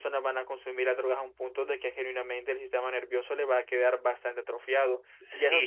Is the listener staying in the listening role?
No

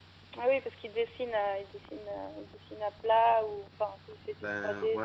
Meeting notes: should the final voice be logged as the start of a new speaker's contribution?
Yes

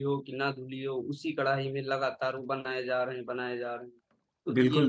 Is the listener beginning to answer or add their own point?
Yes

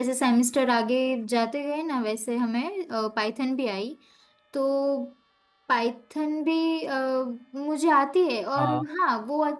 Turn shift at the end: No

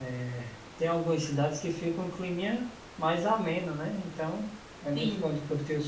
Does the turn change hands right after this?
No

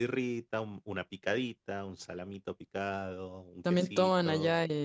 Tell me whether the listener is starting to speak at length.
Yes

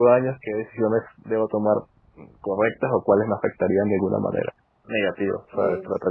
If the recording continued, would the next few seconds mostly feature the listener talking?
No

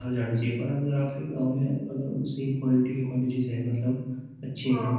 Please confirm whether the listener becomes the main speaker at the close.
No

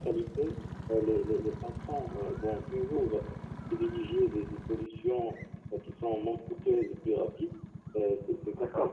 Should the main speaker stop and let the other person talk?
No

